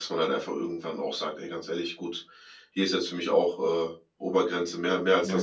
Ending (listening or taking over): listening